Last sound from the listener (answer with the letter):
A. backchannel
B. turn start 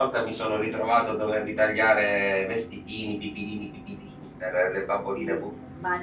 B